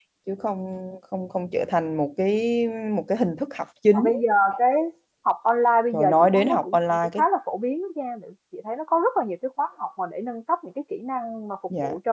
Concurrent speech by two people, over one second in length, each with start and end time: 5.9-7.2

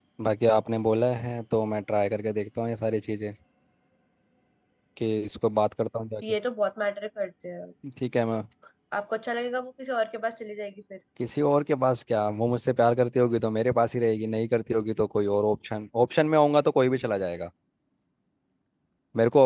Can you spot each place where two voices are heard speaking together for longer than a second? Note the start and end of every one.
none

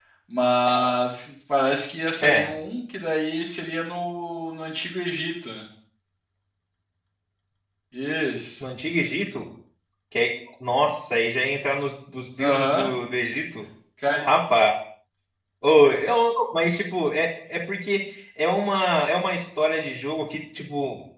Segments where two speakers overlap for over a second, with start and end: none

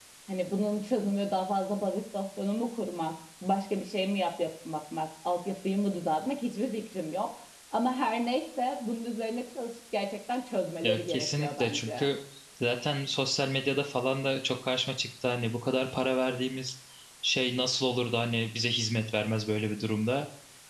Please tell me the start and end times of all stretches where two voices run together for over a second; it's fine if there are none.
10.8-12.0

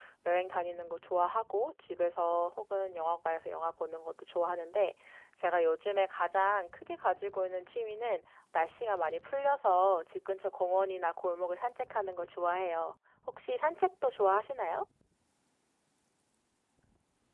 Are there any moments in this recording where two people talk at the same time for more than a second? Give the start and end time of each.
none

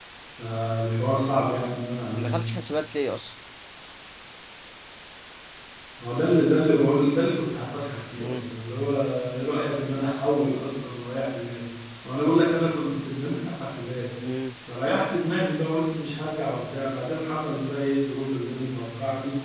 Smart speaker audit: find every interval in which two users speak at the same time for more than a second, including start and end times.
none

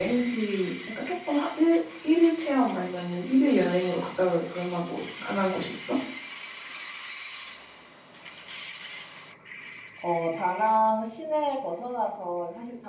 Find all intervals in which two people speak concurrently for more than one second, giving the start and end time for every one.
none

